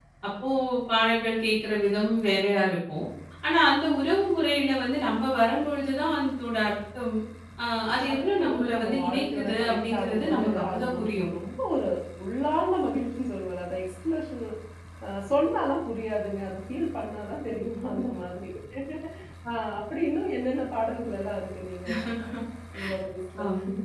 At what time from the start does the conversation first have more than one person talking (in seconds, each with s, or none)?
8.0 s